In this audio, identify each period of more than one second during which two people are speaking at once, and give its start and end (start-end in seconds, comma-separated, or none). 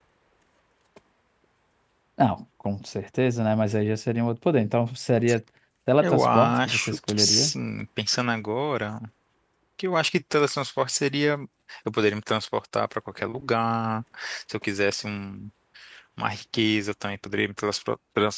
6.0-7.5